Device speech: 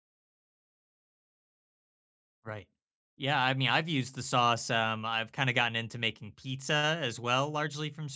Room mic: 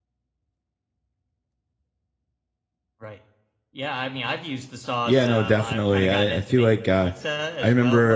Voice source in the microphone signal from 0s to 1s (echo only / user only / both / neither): neither